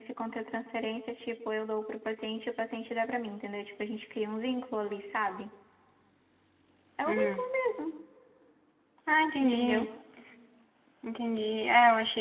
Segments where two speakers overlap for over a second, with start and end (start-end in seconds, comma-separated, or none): none